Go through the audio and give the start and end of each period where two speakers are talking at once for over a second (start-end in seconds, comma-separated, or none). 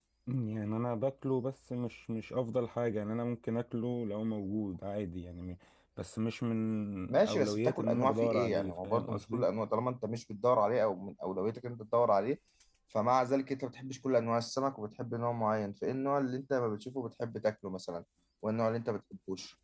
7.1-9.4